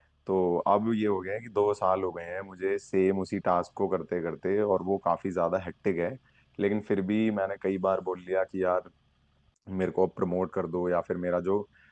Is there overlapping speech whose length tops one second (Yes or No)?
No